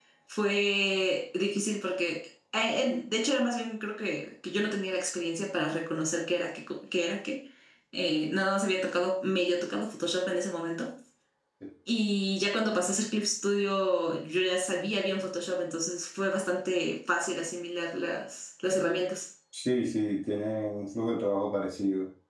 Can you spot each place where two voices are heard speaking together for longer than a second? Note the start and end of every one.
none

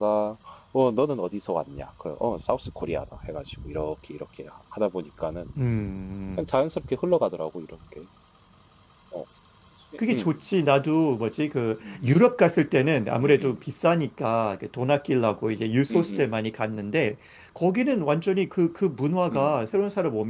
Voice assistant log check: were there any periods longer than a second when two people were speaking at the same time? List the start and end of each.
none

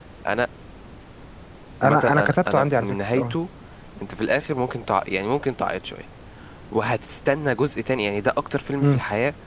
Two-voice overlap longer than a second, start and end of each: 1.8-3.4

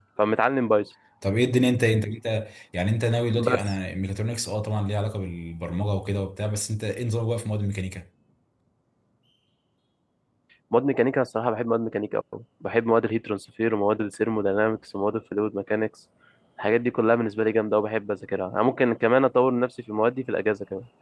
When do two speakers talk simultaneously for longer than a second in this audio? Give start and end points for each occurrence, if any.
none

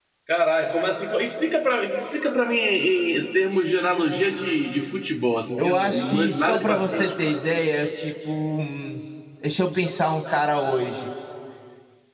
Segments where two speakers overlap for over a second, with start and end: 5.6-7.3

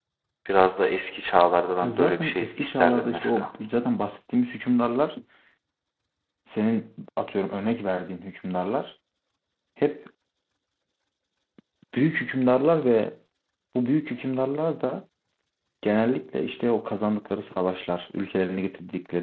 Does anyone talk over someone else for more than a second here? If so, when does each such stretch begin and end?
1.8-3.5

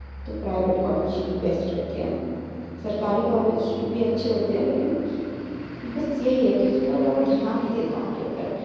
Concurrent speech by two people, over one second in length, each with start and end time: none

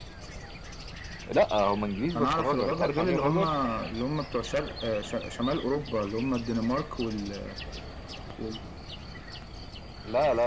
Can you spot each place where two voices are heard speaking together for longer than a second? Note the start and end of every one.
2.2-3.4

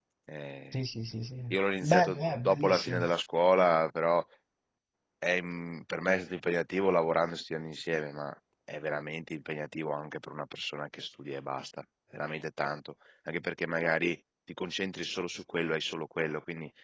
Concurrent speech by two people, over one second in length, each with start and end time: 1.5-3.1

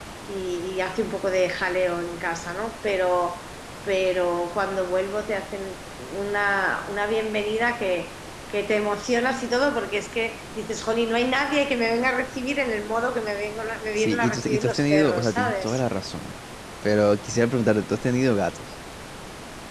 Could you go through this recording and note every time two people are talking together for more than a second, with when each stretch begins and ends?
14.0-15.8

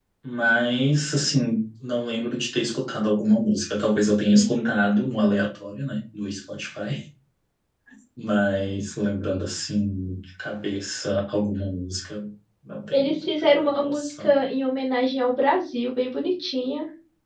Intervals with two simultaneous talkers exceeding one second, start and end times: 12.9-14.4

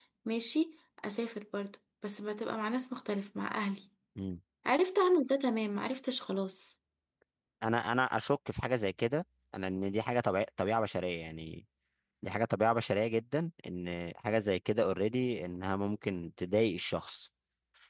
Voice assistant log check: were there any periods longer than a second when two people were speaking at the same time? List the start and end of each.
none

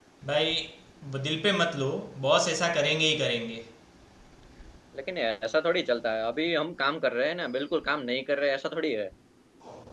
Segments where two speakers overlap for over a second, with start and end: none

